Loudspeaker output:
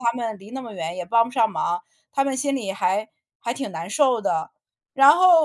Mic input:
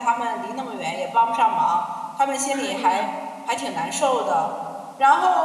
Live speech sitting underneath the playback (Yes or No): Yes